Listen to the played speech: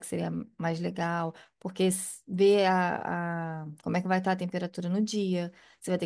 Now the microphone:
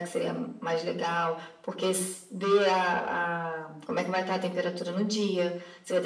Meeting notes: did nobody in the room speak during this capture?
Yes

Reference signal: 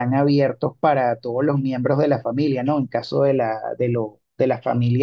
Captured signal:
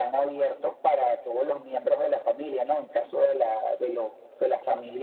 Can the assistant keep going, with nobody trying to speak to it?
Yes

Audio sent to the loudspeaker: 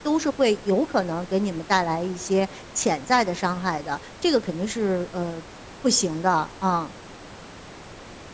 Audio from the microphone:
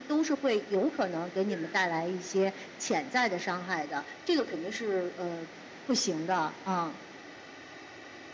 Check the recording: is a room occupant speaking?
Yes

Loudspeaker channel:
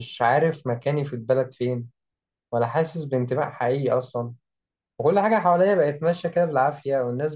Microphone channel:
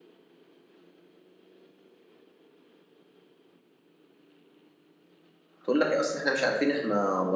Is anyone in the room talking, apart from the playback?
Yes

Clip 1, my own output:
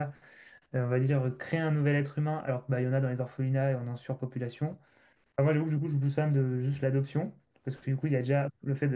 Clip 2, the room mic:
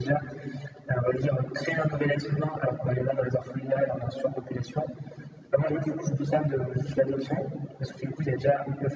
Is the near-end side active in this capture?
No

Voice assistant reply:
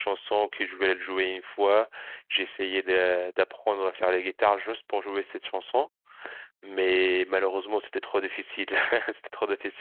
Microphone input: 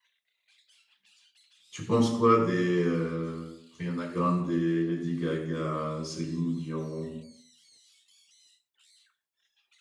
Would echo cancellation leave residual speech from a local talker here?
Yes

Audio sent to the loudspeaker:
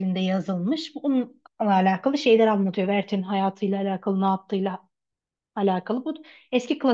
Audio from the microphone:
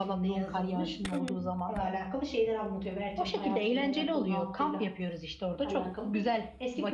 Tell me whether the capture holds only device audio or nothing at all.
No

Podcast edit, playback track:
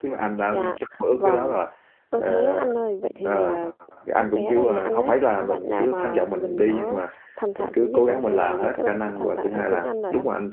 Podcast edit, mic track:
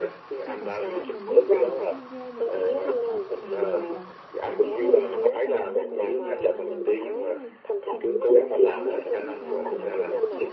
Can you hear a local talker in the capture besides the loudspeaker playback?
Yes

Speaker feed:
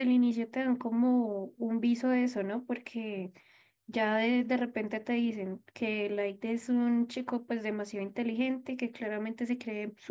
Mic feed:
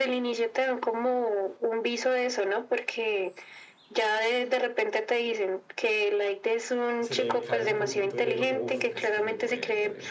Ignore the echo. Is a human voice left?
Yes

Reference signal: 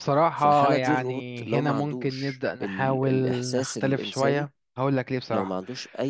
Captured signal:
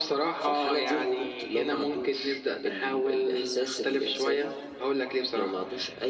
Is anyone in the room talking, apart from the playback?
No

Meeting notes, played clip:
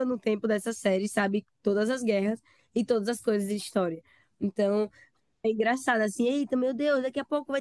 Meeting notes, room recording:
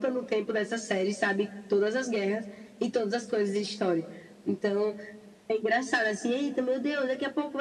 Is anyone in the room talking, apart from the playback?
No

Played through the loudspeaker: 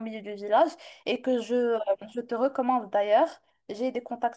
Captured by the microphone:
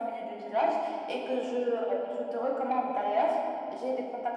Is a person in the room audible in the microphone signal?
No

